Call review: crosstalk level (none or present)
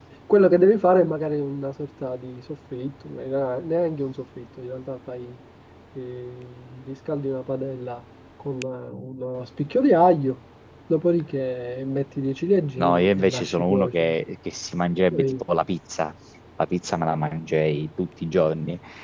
present